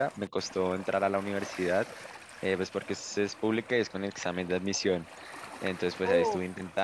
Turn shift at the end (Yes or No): No